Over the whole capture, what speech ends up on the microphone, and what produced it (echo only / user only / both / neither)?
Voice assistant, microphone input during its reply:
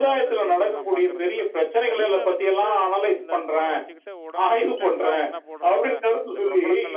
both